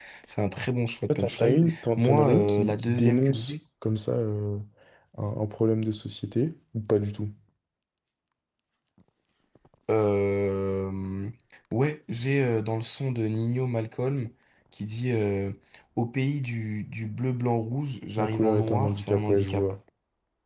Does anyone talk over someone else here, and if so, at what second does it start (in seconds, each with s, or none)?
1.1 s